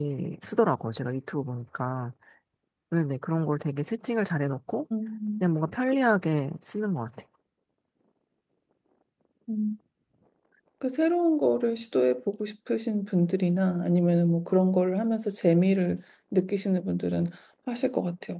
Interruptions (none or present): none